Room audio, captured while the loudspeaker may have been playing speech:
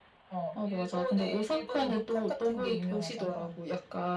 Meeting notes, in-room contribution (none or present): none